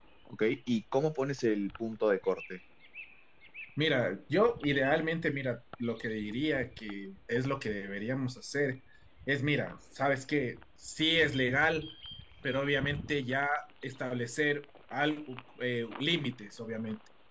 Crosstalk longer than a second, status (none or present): none